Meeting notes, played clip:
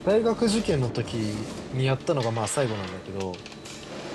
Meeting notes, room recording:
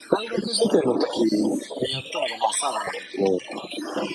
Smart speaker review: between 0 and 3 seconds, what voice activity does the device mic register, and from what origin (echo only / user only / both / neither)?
echo only